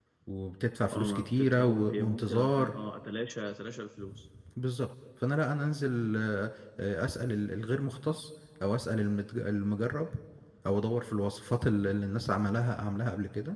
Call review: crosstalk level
present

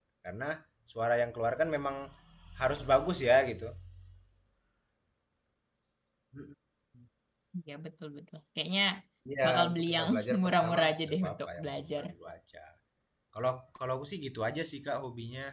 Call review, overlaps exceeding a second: present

